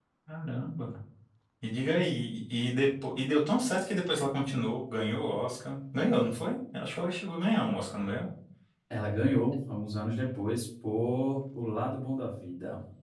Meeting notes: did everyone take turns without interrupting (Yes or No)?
Yes